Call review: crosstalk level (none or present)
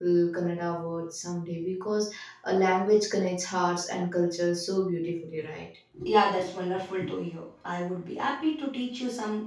none